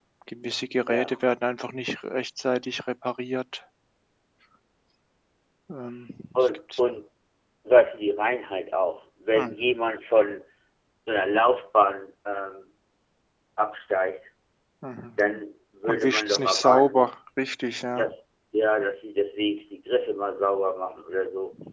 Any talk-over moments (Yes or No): Yes